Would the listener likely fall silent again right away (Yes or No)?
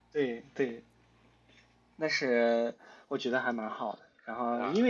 Yes